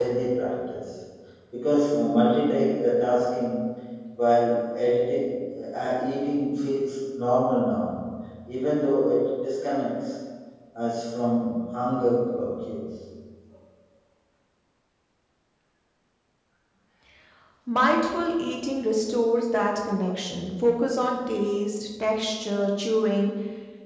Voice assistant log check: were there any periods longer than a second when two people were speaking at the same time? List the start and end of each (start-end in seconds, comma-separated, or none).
none